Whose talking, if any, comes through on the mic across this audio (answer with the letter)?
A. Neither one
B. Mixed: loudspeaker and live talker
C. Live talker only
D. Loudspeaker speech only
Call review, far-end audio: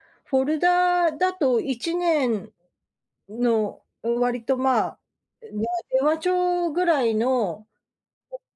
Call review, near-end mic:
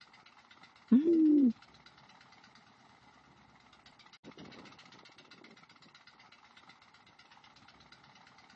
C